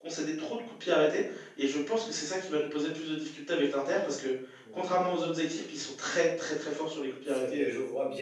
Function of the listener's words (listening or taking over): taking over